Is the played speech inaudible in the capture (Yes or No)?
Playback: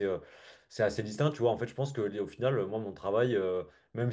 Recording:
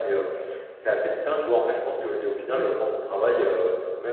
No